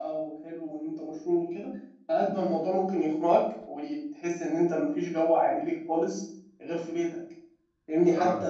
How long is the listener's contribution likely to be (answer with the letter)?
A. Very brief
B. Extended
A